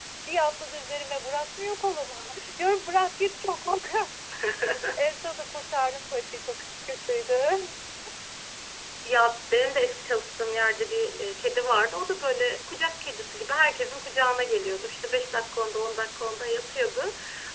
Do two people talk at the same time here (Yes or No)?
No